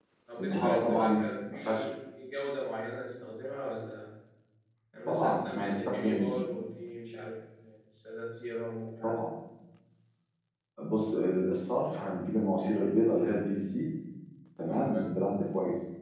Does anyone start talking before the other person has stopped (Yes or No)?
Yes